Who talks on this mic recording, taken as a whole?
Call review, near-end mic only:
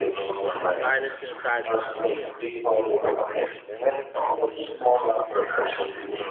both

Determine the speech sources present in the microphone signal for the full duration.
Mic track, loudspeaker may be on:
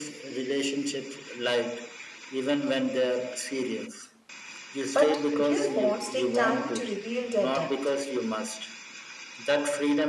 both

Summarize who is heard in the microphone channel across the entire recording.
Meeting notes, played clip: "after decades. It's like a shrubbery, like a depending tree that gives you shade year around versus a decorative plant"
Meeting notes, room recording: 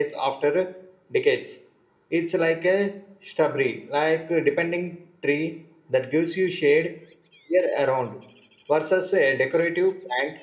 echo only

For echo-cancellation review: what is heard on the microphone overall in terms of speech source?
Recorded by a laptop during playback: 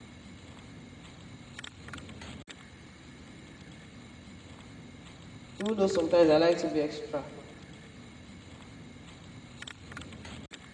user only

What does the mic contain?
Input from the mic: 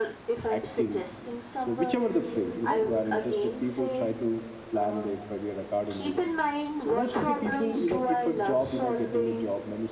both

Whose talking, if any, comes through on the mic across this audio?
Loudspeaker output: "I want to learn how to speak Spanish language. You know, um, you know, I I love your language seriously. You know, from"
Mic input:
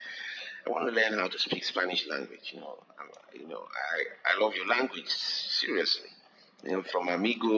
echo only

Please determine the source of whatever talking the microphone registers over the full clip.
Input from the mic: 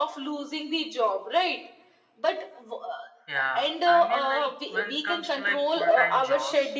both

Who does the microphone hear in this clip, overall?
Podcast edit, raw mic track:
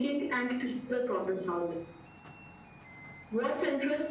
echo only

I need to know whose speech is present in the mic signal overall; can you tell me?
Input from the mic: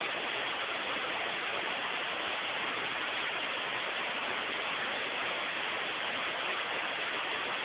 neither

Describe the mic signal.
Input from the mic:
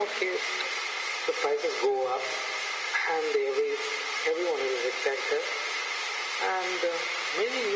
echo only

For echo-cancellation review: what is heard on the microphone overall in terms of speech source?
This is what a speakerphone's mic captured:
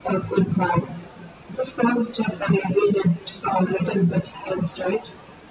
echo only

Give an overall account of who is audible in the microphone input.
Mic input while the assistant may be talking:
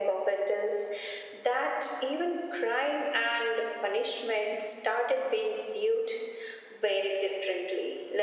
echo only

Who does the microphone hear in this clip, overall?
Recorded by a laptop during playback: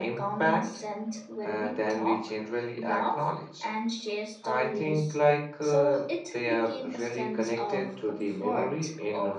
echo only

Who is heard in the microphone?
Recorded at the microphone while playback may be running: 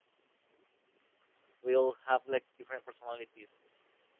user only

